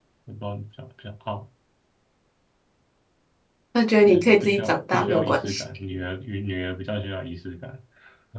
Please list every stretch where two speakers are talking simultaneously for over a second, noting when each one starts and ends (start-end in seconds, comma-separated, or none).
4.1-5.6